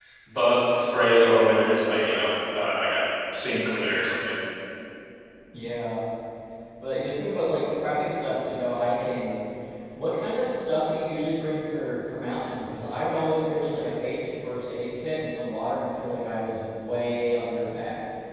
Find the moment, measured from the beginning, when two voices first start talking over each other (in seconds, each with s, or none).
none